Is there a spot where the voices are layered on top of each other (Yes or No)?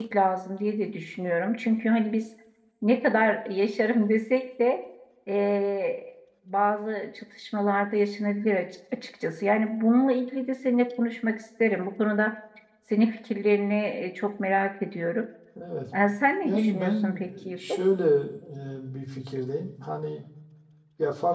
Yes